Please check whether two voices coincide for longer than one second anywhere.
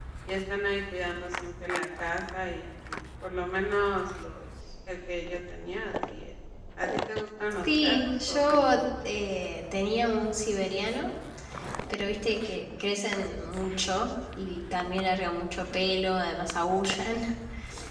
Yes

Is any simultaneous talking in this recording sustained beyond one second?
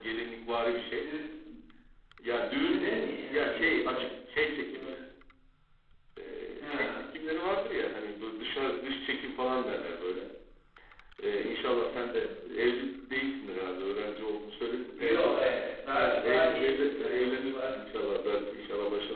Yes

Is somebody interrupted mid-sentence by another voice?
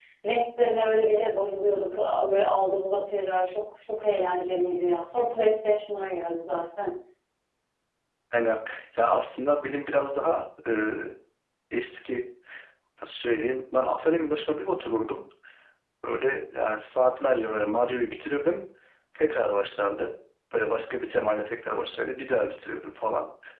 No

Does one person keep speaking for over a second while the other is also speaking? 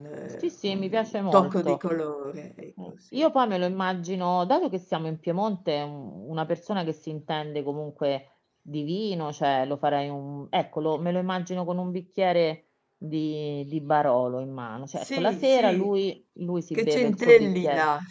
Yes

